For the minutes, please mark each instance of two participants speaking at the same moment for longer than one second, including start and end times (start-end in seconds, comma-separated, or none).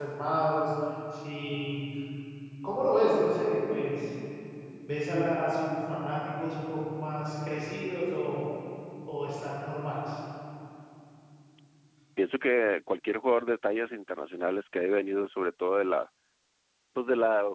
none